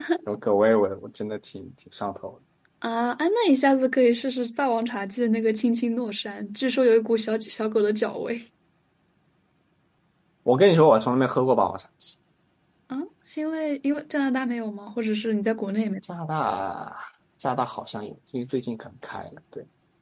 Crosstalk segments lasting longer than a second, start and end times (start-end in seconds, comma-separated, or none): none